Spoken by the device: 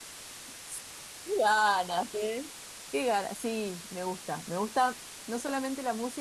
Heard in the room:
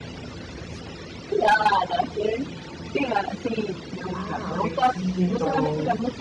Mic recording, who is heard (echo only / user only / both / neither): both